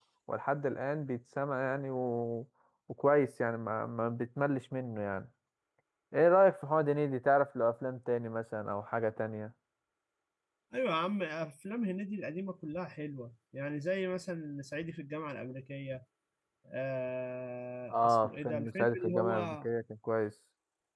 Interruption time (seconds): 18 s

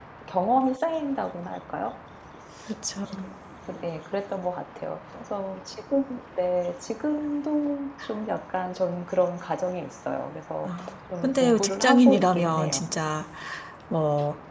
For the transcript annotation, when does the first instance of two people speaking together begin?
11 s

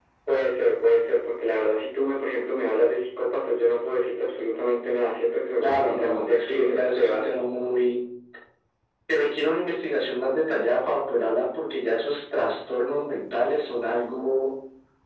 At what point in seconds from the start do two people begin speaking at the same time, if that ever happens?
6 s

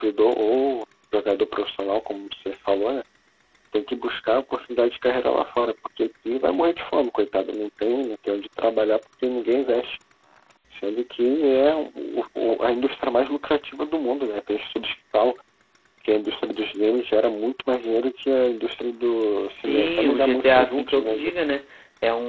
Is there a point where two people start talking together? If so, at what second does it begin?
19 s

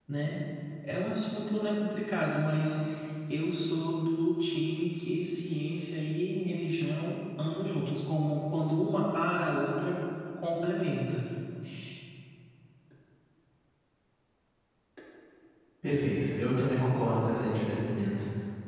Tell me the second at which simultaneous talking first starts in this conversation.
none

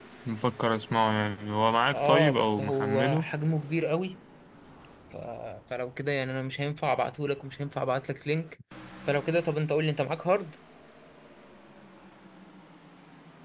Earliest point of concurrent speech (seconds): 2 s

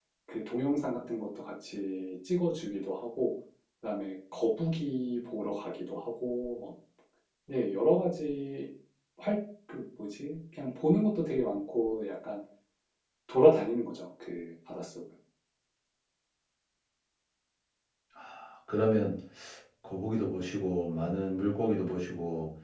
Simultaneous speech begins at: none

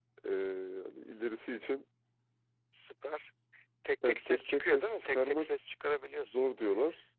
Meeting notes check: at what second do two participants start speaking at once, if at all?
4 s

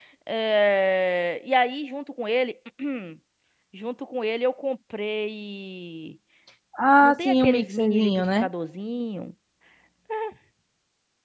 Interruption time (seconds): 7 s

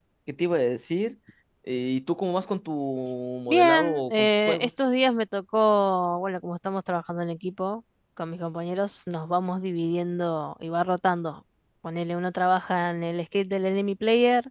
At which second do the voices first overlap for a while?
3 s

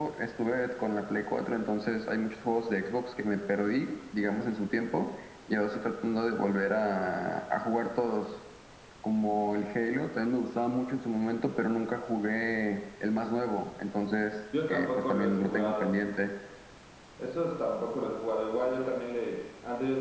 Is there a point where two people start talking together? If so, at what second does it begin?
15 s

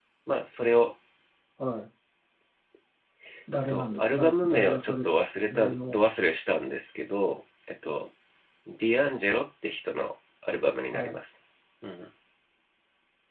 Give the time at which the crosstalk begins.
4 s

